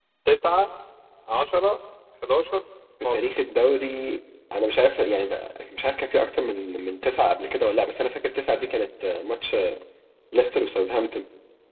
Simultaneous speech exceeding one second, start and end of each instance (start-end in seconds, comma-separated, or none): none